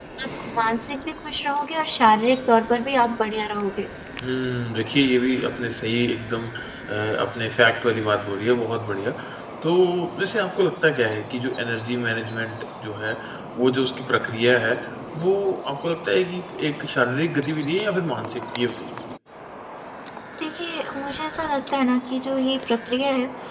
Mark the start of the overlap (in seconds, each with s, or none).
none